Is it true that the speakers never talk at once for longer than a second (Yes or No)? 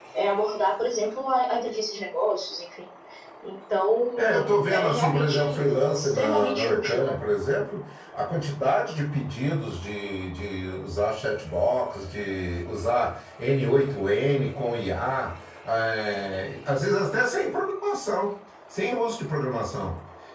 No